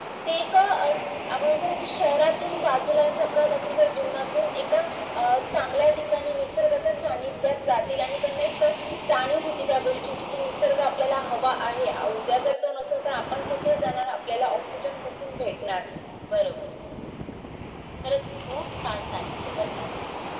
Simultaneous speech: No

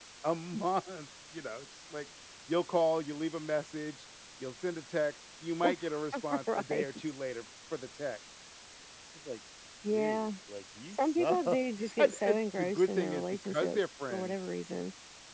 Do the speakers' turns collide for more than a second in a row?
Yes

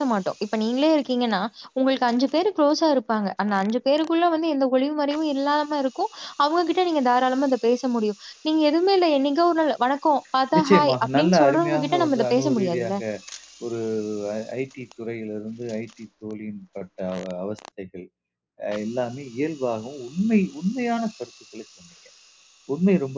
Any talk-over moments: Yes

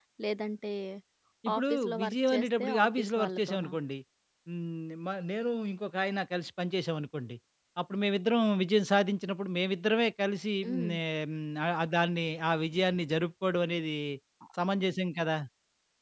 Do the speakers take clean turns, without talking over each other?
No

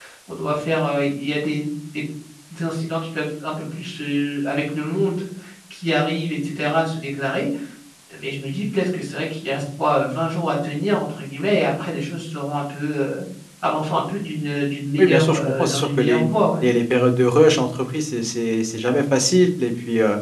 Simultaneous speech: Yes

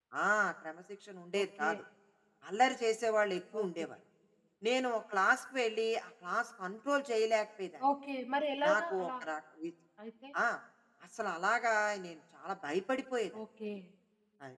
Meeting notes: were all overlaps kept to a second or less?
Yes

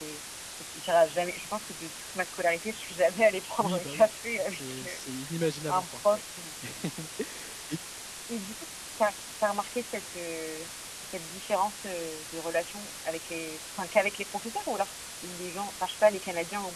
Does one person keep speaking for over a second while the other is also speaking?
Yes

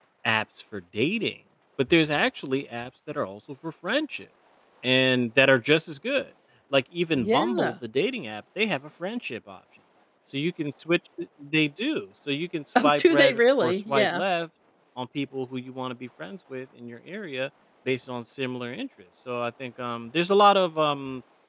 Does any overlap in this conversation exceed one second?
Yes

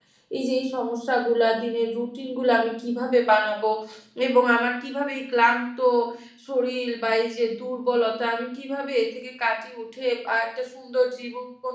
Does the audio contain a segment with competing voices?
No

